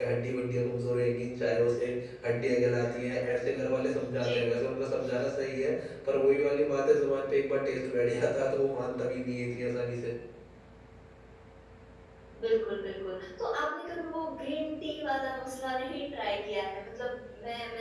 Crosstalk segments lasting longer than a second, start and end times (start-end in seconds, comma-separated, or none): none